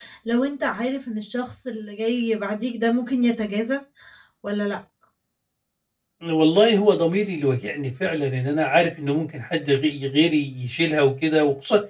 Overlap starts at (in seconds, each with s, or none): none